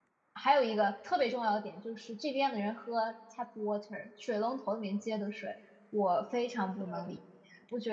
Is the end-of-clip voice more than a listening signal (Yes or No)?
No